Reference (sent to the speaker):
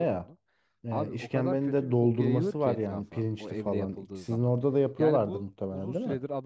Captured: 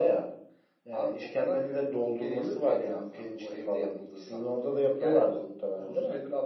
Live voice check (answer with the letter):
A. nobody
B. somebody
A